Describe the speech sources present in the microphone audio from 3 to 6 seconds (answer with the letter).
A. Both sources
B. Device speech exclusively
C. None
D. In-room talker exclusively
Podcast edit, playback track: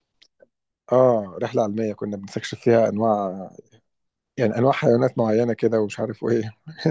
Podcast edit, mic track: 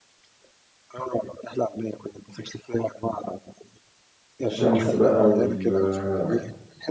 A